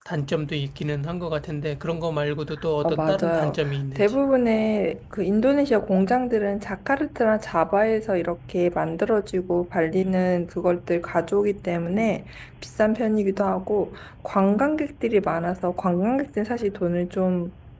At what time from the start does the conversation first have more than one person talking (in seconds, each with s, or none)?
2.8 s